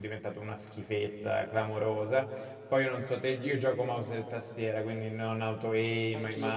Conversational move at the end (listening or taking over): listening